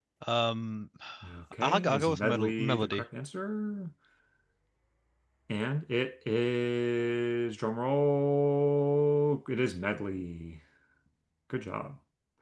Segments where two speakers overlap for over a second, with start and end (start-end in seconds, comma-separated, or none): 1.6-3.0